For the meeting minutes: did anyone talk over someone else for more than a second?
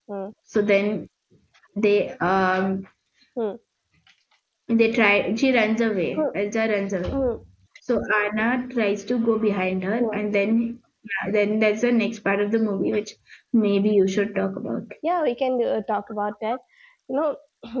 No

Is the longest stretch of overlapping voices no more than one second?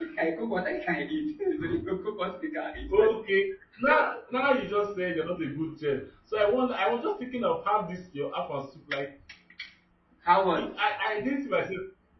Yes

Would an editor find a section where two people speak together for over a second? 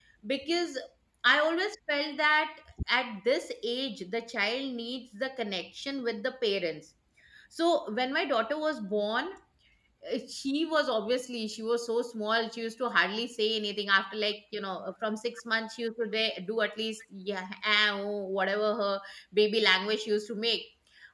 No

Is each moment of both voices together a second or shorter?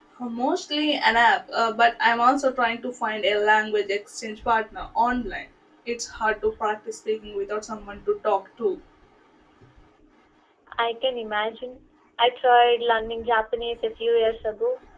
Yes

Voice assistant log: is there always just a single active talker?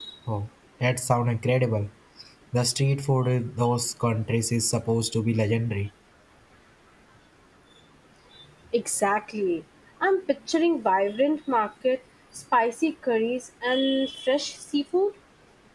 Yes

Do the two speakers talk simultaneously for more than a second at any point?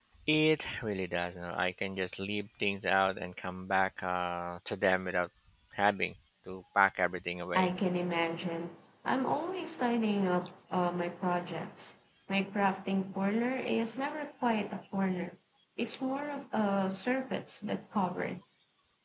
No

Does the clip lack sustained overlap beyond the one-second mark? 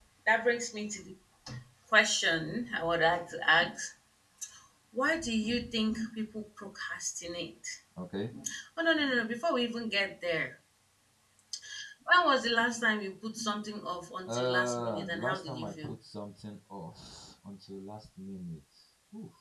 No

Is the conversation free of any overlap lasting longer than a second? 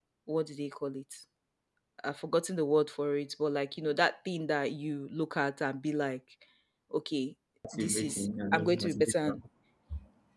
No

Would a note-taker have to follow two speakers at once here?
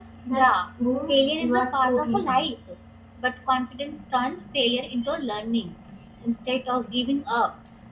Yes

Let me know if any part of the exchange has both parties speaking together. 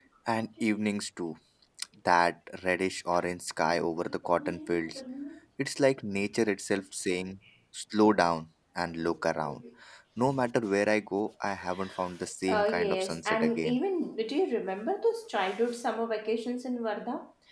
Yes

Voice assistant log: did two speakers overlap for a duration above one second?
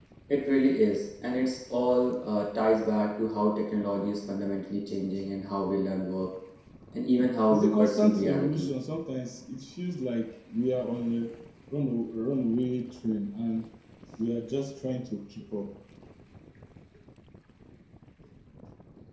Yes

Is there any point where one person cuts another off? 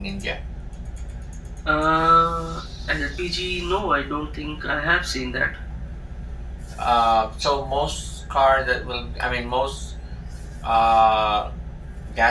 No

